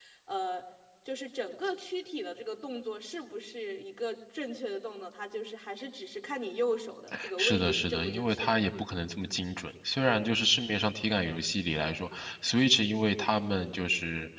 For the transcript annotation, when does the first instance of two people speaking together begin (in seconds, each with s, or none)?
7.4 s